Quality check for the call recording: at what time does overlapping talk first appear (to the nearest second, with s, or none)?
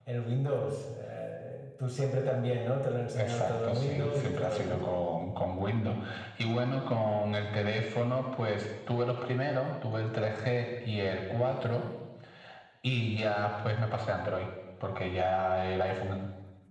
3 s